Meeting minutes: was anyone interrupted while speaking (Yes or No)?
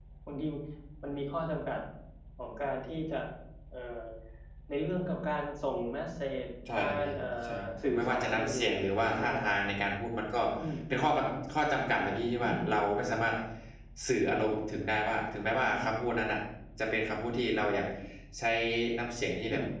Yes